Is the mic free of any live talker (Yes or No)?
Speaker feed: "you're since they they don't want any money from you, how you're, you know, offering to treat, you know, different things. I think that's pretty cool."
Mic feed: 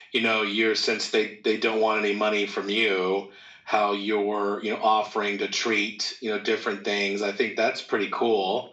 Yes